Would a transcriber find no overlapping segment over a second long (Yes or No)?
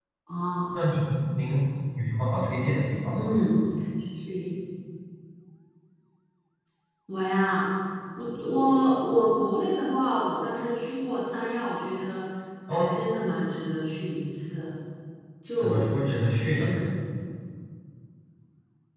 Yes